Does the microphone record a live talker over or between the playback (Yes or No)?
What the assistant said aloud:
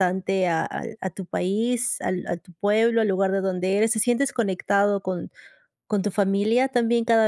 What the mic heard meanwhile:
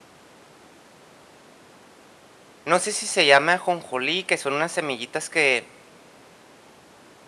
Yes